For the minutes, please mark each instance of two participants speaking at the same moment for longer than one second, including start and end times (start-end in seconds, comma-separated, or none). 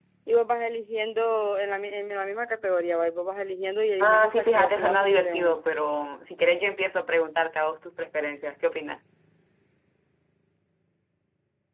4.0-5.6